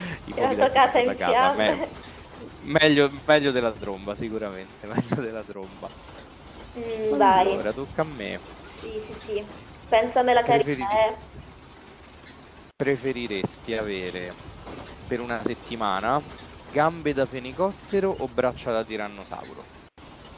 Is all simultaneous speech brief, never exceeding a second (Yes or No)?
No